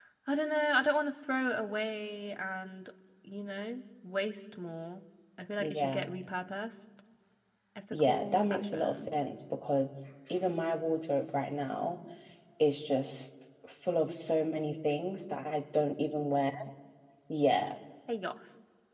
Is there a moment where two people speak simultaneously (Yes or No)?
Yes